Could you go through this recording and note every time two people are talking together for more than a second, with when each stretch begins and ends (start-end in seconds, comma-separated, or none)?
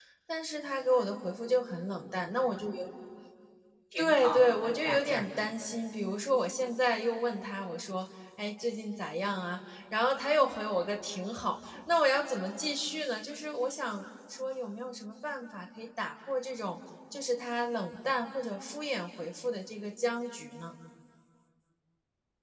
4.0-5.3